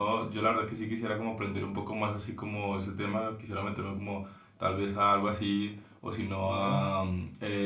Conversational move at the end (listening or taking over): listening